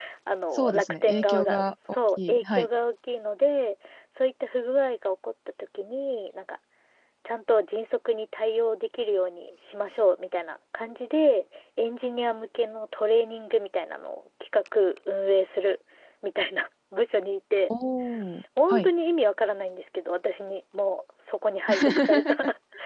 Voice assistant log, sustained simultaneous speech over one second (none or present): present